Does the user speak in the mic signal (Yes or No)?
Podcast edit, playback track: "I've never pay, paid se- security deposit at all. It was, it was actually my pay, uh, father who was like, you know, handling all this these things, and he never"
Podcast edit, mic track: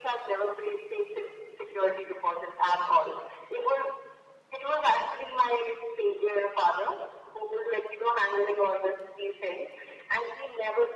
No